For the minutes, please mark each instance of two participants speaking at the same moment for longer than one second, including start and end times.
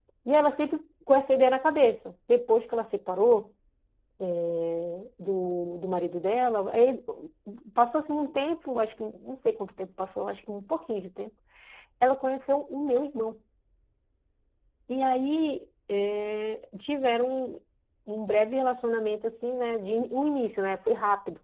none

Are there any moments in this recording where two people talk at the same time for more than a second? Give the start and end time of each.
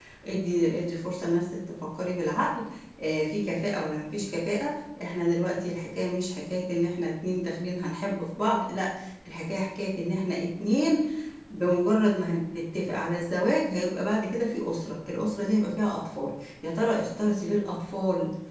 none

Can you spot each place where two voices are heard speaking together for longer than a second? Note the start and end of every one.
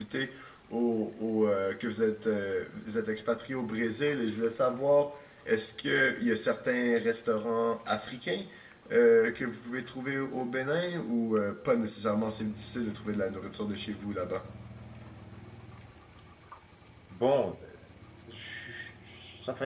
none

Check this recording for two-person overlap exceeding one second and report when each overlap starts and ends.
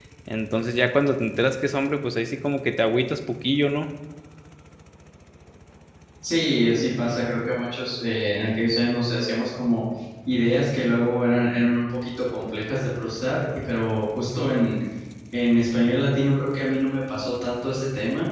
none

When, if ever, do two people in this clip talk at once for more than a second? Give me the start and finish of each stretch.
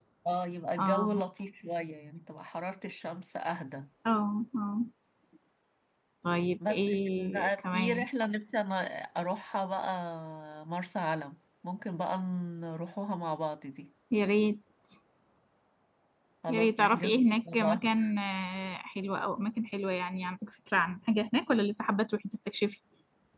6.7-8.1, 16.5-17.8

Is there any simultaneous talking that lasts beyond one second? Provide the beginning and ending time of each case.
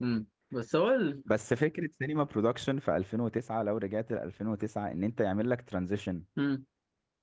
none

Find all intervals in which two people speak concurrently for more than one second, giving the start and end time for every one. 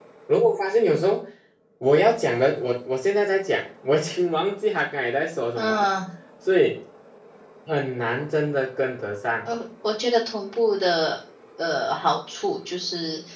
none

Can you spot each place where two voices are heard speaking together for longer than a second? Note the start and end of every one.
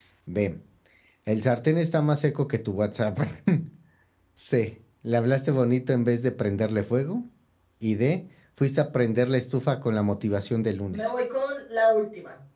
none

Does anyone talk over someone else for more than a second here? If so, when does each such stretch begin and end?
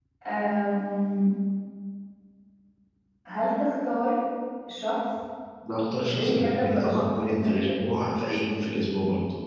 6.1-7.8

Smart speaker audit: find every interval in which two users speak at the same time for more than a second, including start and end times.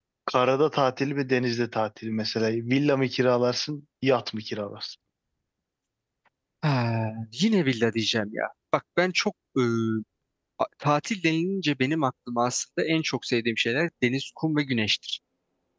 none

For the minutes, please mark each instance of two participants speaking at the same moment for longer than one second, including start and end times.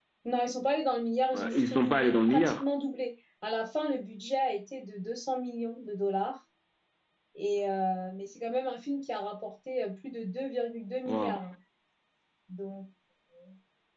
1.3-2.6

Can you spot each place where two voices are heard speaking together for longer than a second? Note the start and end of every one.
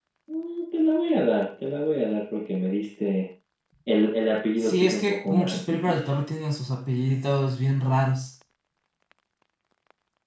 4.6-6.2

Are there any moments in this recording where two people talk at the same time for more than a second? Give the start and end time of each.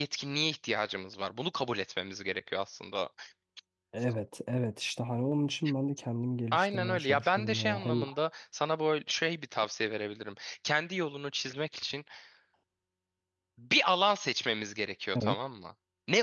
6.5-8.0

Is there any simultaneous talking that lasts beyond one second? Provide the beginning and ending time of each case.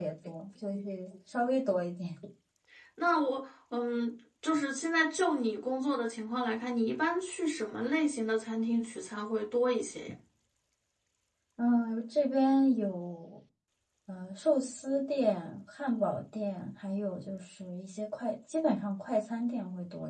none

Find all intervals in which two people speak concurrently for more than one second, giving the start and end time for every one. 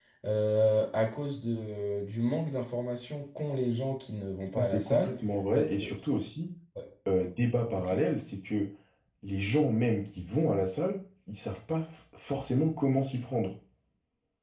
none

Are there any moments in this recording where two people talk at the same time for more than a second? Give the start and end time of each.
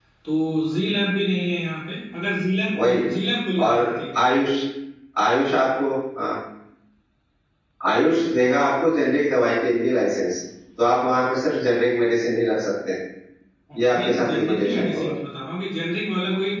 13.8-15.1

